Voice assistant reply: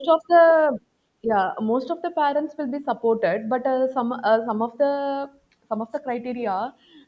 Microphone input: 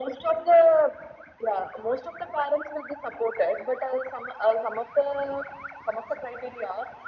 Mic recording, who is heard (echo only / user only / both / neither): echo only